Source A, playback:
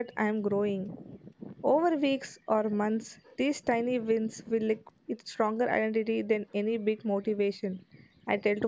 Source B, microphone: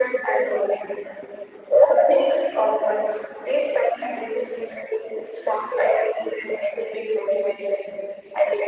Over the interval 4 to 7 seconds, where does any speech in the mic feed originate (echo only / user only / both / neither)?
echo only